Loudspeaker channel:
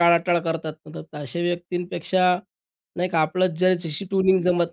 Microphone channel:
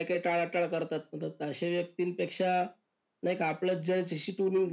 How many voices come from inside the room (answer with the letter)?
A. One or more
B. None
B